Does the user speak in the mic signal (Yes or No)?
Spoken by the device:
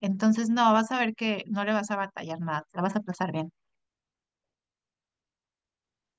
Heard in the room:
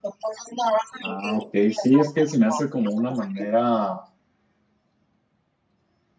Yes